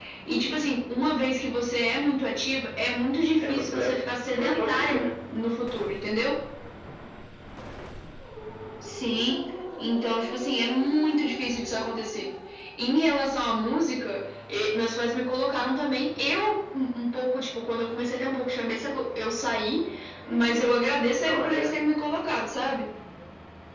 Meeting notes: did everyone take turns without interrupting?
No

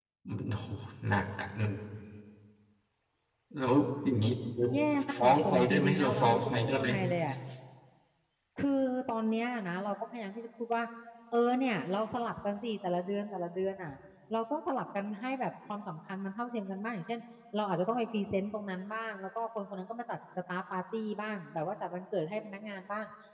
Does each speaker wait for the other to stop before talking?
No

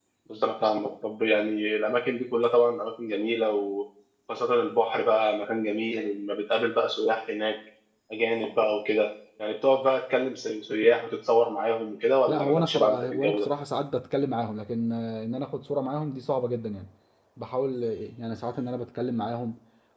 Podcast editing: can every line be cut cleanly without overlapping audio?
No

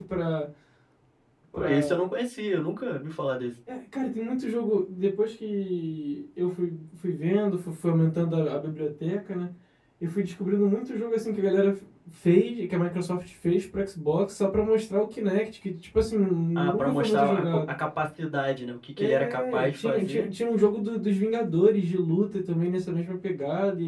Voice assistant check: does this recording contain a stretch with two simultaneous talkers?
Yes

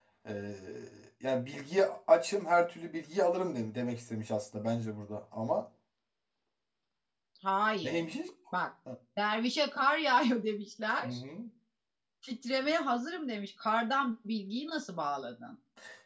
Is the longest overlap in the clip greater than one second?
No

